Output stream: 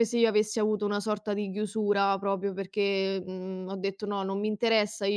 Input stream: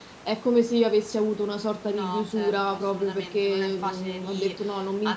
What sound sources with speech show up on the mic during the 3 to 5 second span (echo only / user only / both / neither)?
both